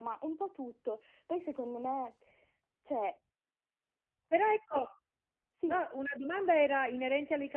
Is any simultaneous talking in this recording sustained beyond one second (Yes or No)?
No